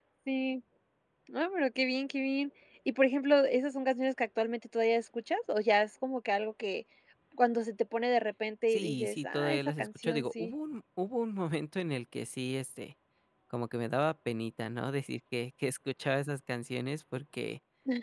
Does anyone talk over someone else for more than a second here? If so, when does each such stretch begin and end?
8.7-10.5

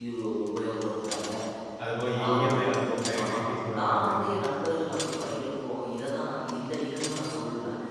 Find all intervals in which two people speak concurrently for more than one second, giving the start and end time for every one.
none

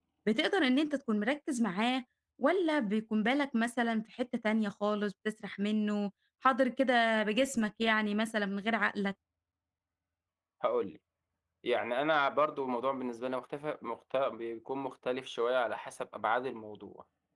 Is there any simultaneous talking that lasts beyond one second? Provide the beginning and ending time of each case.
none

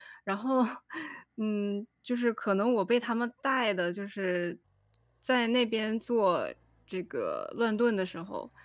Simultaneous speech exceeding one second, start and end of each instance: none

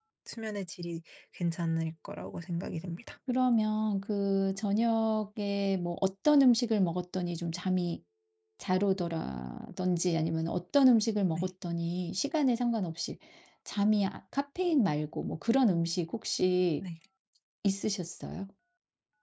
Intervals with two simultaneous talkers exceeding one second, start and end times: none

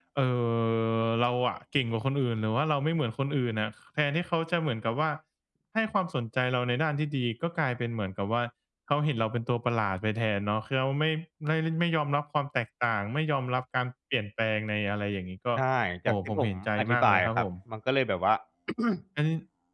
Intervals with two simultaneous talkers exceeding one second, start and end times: 16.1-17.5

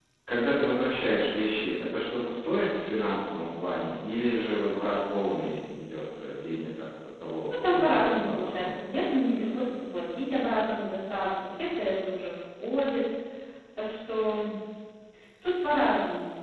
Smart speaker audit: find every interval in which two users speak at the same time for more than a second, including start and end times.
7.5-8.8

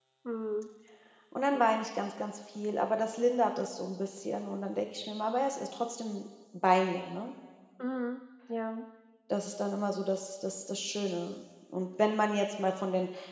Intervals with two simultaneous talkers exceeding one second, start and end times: none

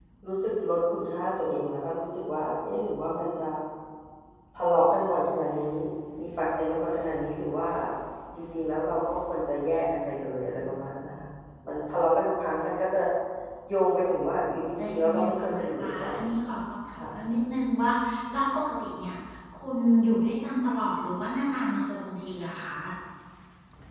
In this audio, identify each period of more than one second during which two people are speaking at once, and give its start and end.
14.8-16.1

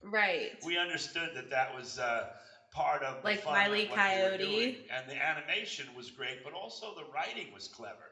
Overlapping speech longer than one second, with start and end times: 3.2-4.7

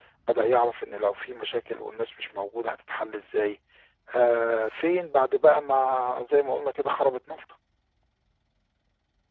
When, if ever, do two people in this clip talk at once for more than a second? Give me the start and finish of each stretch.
none

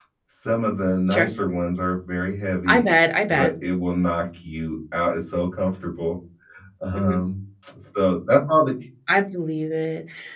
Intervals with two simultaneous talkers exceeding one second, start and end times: none

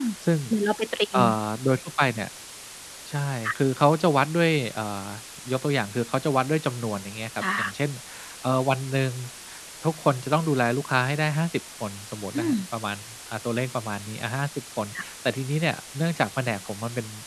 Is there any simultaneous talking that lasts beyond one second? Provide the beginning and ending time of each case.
none

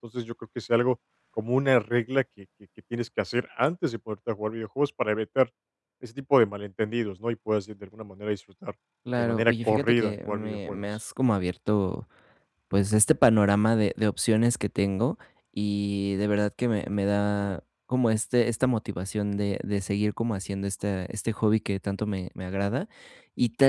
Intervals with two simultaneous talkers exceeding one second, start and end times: 9.2-10.8

